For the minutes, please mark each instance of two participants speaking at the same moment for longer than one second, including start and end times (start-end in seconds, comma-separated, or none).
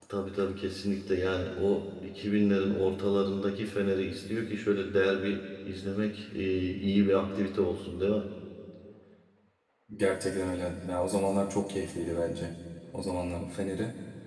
none